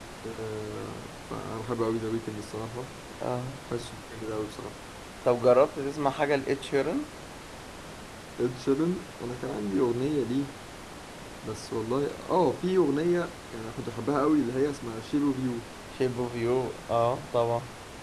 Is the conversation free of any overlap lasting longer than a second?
Yes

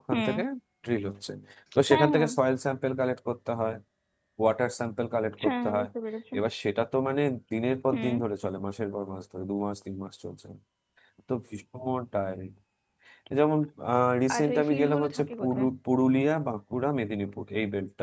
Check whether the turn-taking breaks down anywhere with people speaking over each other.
Yes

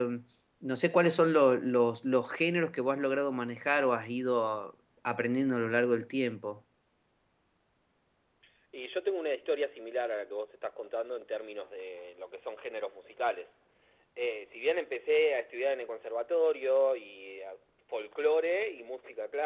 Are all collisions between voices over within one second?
Yes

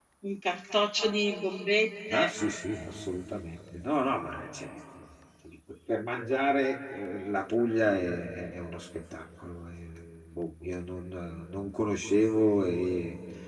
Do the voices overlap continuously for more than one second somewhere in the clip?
No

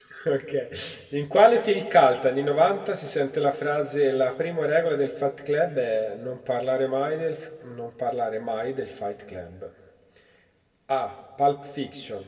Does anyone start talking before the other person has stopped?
No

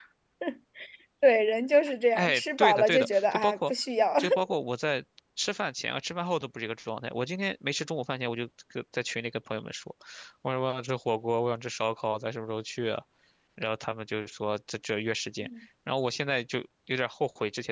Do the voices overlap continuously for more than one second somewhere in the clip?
Yes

